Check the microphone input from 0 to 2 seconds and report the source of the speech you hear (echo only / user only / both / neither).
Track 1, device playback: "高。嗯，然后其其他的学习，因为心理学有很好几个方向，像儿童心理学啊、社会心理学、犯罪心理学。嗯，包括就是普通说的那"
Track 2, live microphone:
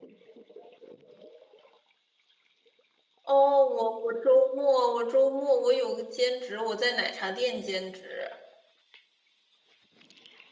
neither